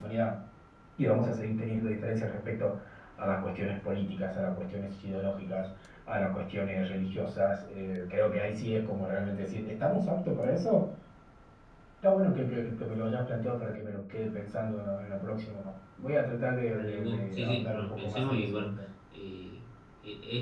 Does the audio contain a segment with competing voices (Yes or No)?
Yes